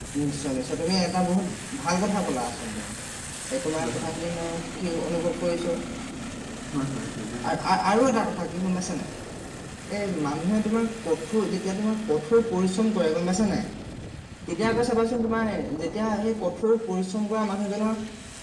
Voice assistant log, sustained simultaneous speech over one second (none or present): none